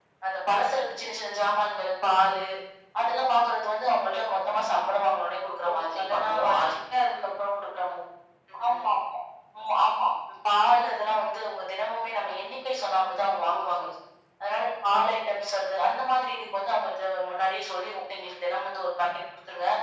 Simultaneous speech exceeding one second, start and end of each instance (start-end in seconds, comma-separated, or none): 5.6-7.2